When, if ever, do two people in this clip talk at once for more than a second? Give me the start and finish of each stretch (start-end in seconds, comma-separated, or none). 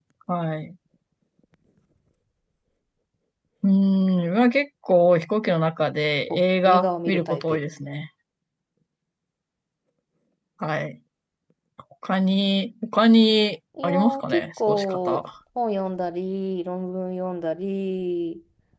6.3-7.6, 13.8-15.2